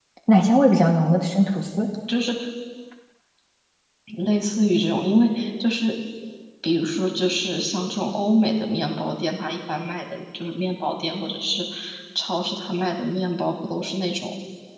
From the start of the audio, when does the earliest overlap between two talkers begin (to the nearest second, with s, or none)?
none